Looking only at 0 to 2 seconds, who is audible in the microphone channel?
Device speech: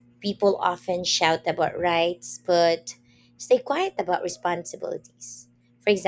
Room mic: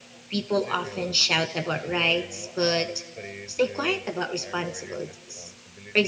both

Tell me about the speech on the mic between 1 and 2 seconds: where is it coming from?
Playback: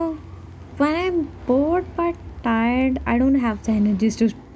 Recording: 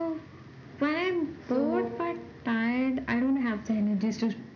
both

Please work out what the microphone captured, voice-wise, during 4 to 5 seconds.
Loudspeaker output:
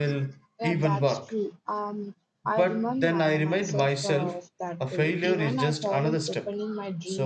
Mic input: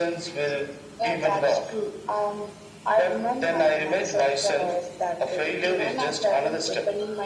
echo only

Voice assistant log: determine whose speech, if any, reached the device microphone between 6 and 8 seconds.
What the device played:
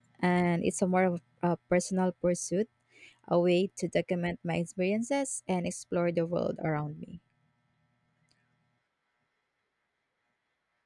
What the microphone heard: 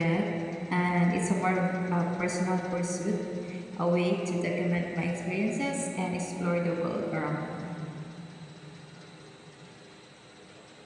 echo only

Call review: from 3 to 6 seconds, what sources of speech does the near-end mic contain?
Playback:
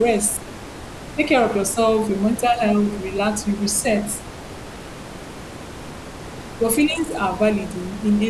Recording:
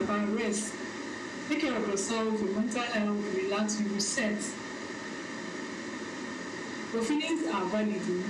echo only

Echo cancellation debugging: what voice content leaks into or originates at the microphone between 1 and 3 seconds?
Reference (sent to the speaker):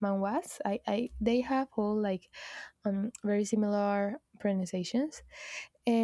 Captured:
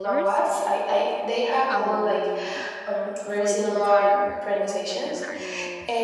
both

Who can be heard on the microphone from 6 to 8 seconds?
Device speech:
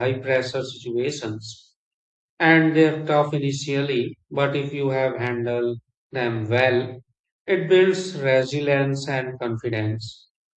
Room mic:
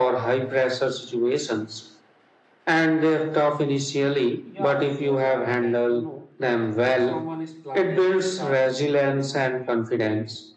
both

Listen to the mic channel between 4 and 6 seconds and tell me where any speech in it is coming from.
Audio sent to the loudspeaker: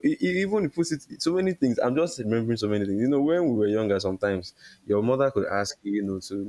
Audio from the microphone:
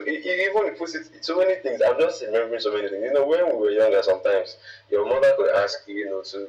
echo only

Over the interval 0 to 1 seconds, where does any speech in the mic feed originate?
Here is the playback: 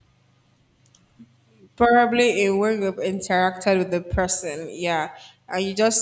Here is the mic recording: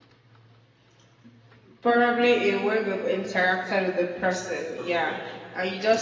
neither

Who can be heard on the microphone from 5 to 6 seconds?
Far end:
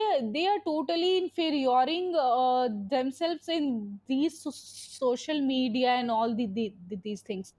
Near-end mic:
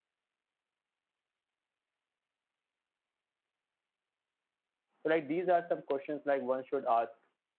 user only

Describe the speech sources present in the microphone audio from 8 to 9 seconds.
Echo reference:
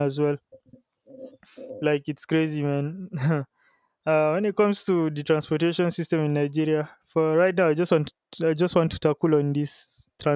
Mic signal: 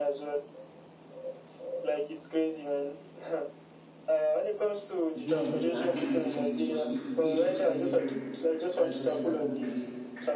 both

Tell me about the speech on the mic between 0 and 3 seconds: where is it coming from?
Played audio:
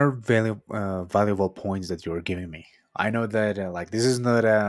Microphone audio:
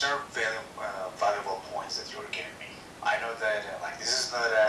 echo only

